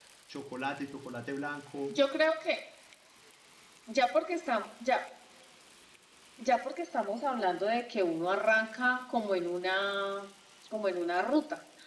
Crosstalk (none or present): none